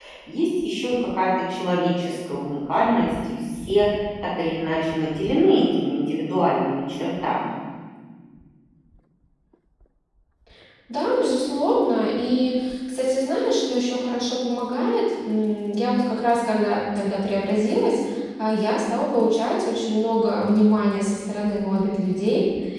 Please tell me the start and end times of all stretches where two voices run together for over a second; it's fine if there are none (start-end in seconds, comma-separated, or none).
none